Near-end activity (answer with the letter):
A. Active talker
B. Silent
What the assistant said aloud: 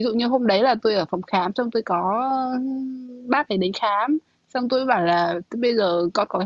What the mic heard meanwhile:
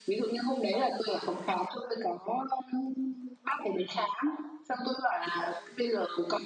B